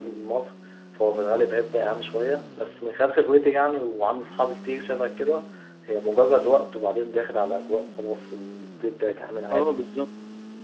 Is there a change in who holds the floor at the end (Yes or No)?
Yes